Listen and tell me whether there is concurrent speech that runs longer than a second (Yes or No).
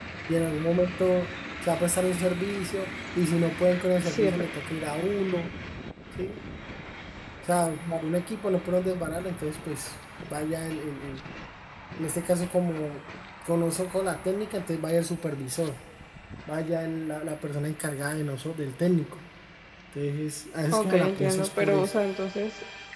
Yes